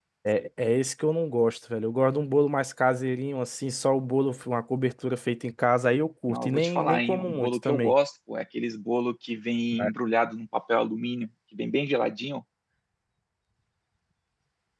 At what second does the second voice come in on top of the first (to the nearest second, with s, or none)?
6 s